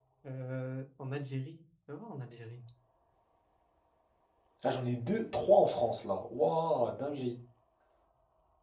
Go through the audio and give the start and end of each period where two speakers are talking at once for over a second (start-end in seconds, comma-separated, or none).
none